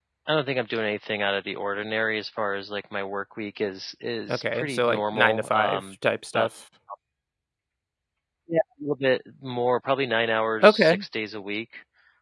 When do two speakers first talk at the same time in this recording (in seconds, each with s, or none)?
4.3 s